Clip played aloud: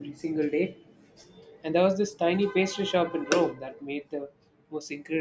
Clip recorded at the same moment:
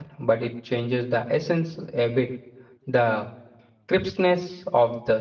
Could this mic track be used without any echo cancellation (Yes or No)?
Yes